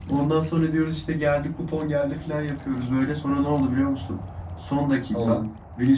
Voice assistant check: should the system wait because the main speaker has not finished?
Yes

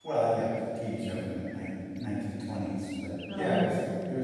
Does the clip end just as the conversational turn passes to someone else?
No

